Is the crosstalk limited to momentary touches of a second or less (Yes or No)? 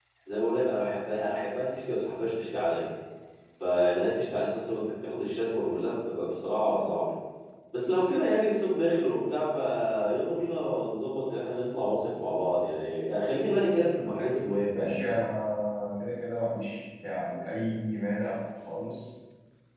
Yes